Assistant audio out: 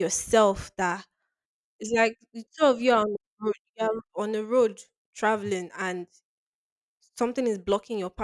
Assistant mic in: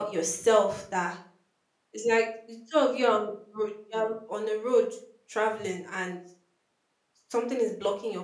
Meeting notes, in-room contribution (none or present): none